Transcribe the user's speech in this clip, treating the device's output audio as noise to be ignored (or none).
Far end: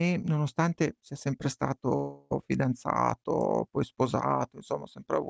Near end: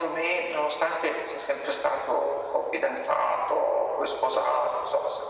none